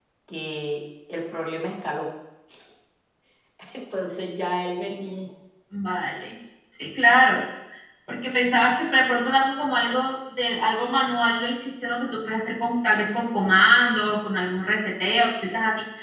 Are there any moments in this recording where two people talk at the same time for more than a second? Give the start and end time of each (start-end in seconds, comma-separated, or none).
none